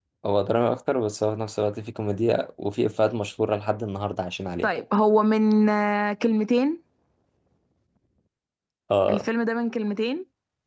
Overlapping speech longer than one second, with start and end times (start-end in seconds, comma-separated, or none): none